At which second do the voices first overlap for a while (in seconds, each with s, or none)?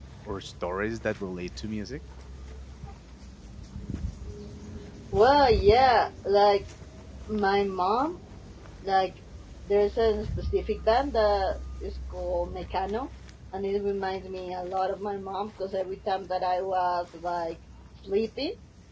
none